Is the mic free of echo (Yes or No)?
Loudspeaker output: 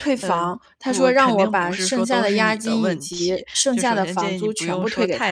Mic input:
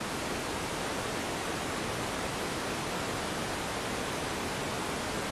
Yes